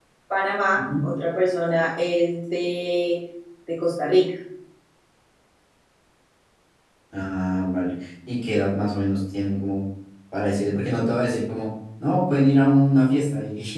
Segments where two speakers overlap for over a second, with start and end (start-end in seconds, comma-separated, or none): none